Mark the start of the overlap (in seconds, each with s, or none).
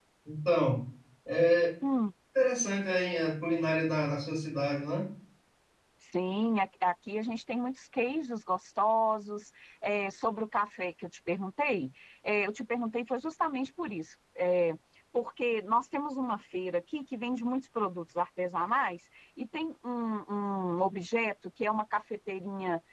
none